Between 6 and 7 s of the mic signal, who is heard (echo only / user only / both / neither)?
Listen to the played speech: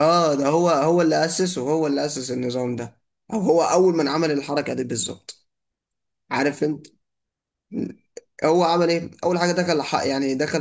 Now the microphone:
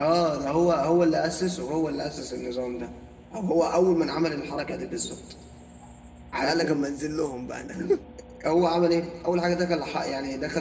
both